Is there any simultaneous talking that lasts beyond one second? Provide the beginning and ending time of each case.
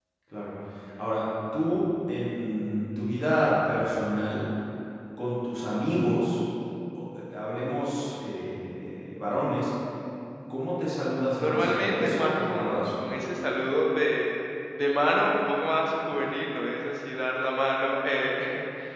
11.3-13.0

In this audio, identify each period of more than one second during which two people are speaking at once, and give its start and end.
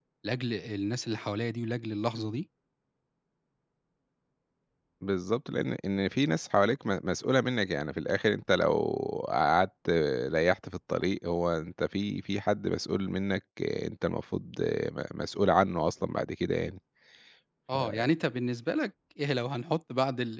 none

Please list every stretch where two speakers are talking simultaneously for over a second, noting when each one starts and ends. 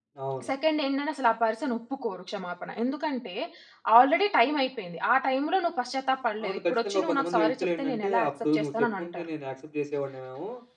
6.4-9.2

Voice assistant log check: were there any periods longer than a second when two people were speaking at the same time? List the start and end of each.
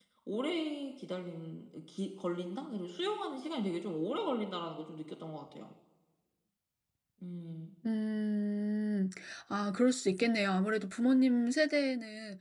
none

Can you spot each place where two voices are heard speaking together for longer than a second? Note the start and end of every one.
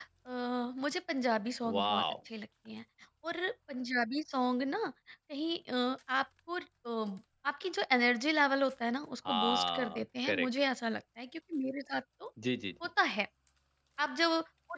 9.3-10.5

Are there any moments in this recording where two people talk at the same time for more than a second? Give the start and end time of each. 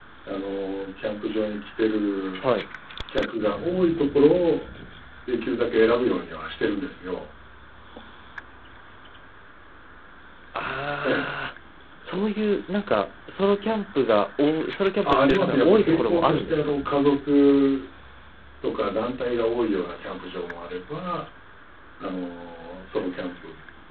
15.0-16.7

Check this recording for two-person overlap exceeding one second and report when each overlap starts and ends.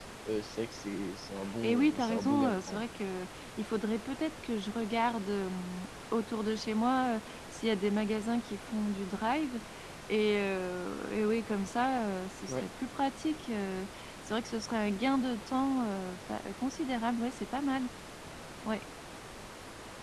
1.6-2.9

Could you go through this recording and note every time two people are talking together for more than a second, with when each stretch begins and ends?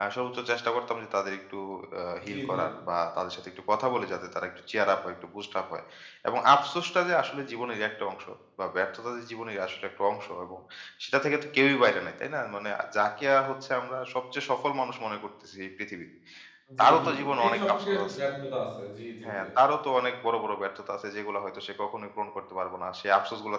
16.8-18.2

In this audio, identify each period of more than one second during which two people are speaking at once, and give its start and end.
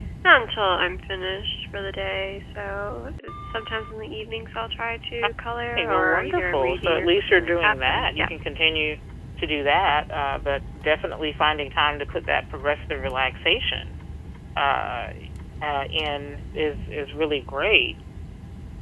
5.8-8.3

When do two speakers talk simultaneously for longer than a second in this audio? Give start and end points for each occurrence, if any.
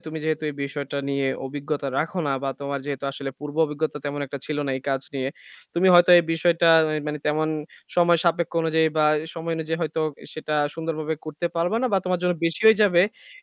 none

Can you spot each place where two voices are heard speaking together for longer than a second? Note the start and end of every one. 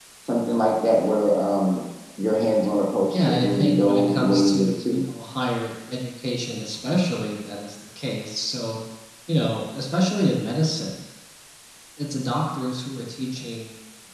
3.1-5.0

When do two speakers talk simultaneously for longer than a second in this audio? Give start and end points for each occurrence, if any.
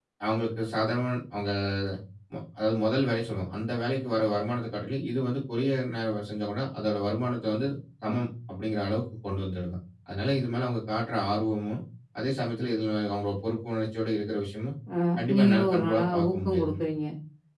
15.3-16.7

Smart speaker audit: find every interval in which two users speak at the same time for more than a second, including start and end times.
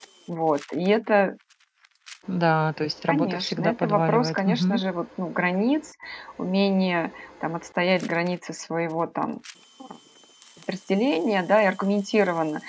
3.1-4.8

